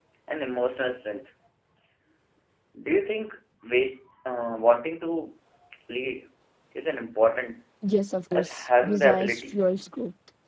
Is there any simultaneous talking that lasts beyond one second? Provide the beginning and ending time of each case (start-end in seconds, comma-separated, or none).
8.3-9.6